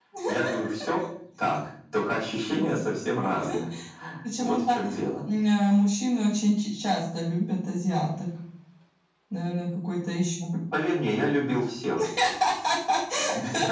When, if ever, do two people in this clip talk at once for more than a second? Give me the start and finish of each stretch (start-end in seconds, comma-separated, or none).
none